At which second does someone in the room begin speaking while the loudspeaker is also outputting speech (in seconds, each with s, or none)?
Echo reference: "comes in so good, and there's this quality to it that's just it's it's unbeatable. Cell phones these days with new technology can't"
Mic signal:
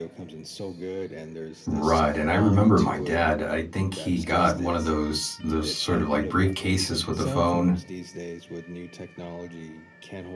1.7 s